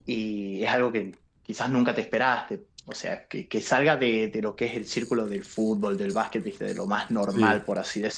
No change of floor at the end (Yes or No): Yes